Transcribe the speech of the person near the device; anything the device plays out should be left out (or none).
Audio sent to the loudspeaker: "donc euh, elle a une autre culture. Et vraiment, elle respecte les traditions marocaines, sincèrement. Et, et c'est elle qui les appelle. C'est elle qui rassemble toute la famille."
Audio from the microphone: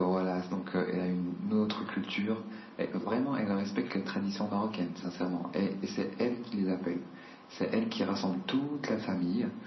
none